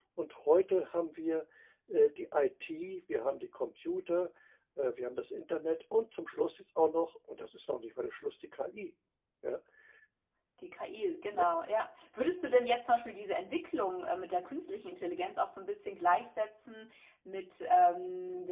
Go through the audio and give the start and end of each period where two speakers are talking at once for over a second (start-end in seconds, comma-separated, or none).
none